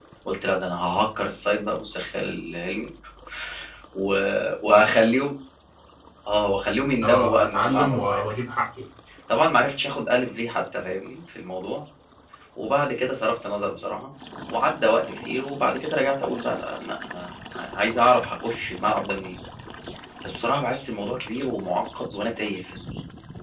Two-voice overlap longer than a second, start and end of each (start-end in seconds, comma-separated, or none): 7.0-8.3